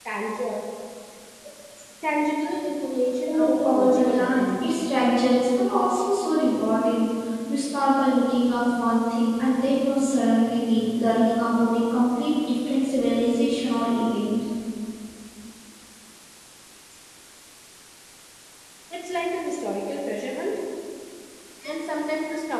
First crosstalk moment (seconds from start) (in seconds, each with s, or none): 3.3 s